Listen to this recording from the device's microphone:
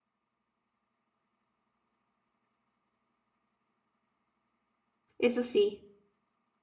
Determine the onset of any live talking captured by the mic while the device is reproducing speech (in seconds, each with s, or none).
5.2 s